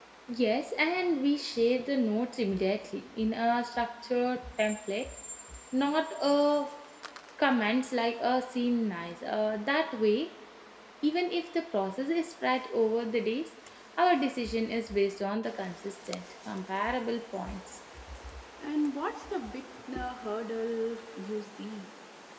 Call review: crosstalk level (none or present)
none